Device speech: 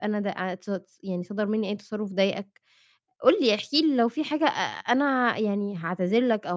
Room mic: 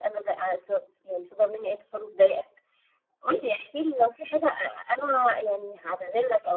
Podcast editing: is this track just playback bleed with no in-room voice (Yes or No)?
Yes